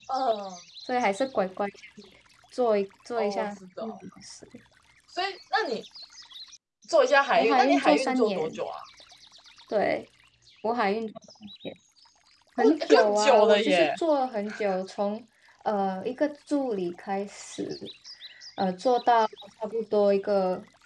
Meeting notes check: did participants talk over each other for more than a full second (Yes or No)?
Yes